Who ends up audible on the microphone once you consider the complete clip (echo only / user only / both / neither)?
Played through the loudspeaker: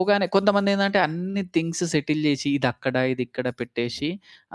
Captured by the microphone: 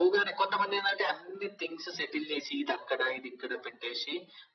echo only